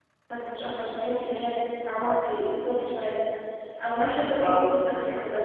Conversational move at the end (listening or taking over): listening